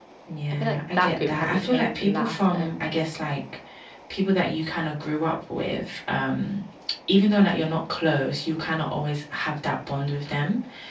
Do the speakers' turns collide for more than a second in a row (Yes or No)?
Yes